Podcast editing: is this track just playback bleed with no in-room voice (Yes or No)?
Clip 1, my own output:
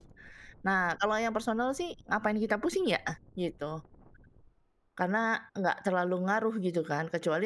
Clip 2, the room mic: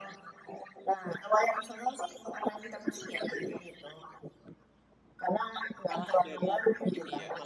No